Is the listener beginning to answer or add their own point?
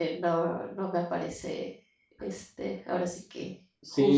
Yes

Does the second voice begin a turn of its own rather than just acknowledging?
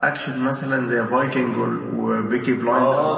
Yes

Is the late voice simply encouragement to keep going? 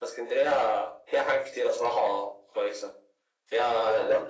Yes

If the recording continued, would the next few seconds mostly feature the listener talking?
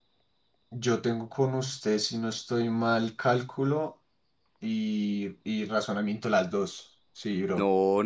Yes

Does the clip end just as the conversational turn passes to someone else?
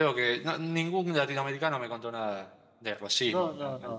Yes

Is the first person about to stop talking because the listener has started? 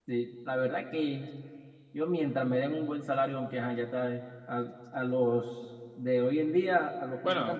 No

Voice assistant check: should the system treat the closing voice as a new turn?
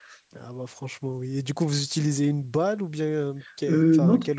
Yes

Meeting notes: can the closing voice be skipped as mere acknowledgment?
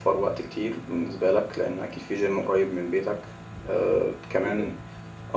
Yes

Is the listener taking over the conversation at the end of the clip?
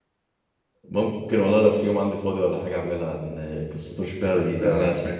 No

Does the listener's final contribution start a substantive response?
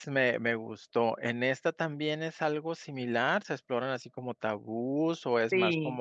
Yes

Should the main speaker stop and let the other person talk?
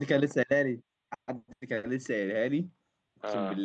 No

